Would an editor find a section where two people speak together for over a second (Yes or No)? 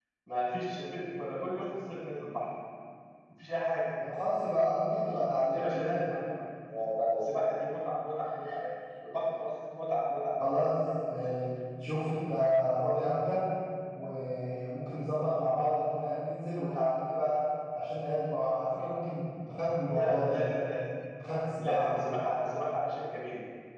No